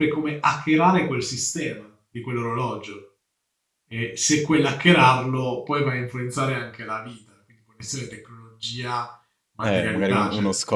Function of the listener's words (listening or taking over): taking over